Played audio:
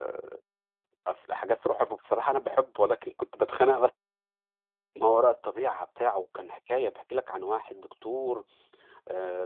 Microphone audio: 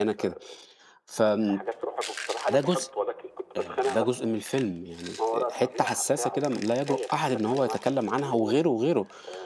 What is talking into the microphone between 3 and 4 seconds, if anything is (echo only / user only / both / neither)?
both